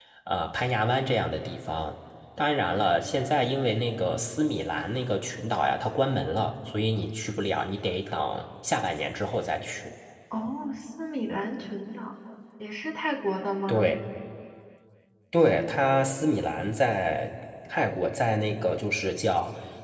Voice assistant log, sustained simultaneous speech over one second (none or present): none